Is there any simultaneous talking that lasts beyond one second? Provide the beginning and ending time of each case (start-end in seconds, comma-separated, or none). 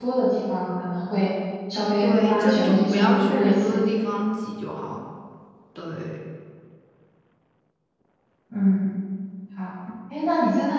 2.0-3.8